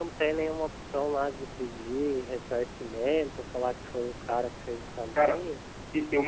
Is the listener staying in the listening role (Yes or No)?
No